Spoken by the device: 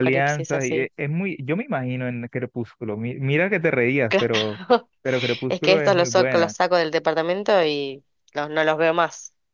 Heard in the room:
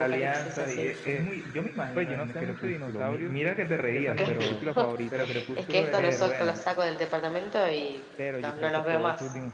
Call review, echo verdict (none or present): present